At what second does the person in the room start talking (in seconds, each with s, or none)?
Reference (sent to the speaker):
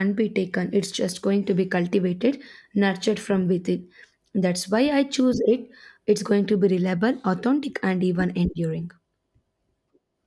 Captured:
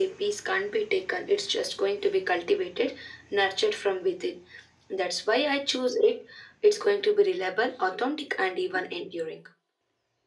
none